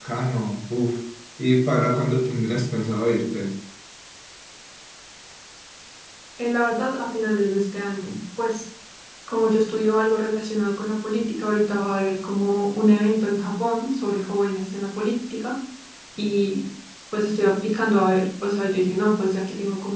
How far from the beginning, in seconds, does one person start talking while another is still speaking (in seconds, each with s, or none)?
none